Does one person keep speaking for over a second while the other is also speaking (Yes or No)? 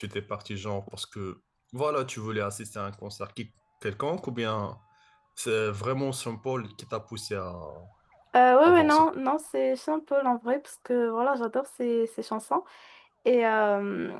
No